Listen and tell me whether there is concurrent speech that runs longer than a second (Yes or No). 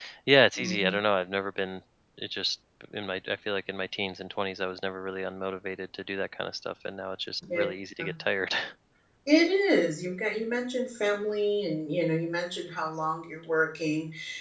No